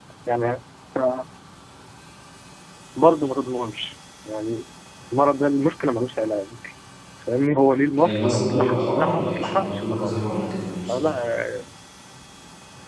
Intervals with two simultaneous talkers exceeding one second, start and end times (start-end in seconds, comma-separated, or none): 8.0-10.1